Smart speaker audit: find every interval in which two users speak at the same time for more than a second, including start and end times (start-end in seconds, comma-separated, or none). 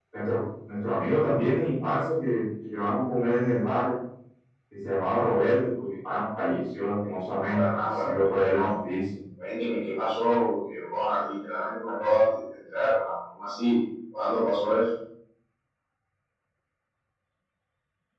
7.5-8.7